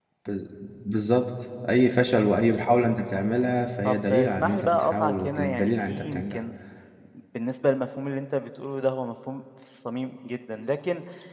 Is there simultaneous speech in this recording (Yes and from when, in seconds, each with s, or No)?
Yes, from 3.8 s